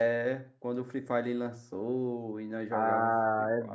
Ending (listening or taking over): taking over